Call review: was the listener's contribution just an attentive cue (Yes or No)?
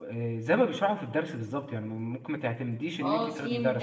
No